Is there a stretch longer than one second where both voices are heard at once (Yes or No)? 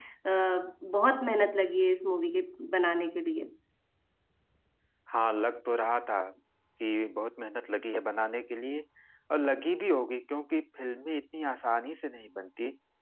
No